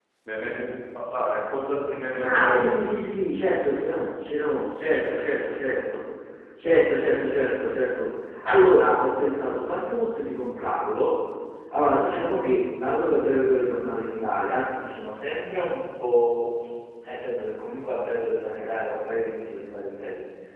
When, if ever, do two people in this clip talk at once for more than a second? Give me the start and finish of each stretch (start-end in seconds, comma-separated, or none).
none